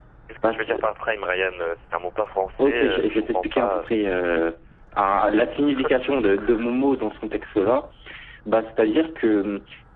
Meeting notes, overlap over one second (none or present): present